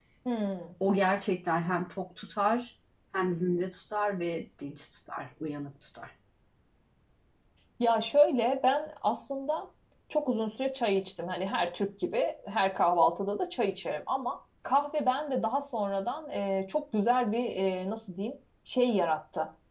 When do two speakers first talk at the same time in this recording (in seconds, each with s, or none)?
none